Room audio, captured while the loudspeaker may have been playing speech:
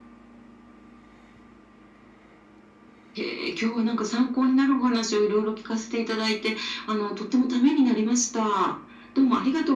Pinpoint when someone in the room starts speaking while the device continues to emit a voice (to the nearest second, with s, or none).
none